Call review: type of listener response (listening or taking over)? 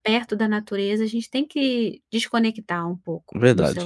taking over